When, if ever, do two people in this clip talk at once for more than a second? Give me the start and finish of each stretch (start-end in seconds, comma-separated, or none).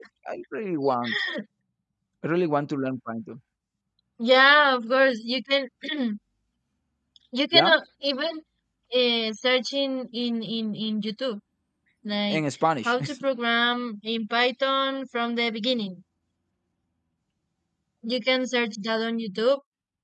none